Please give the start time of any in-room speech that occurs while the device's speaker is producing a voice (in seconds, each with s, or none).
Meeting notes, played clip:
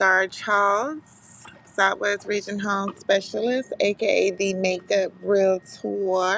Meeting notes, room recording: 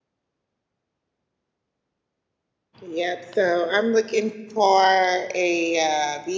2.8 s